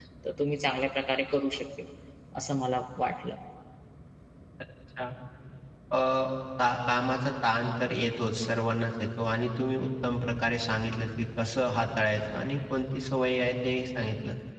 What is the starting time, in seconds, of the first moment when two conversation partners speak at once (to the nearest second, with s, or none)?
none